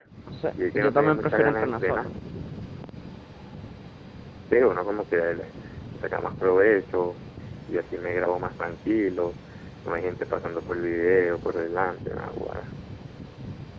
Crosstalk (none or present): present